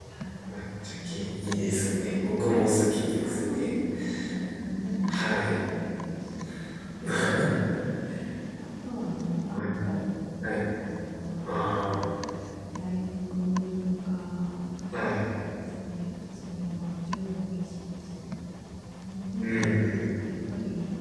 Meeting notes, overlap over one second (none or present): present